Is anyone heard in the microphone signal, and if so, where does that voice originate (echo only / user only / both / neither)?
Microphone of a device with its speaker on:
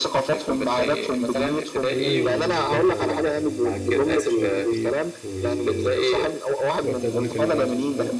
both